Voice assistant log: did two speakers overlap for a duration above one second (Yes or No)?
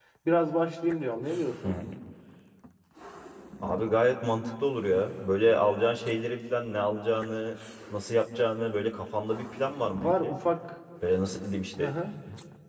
No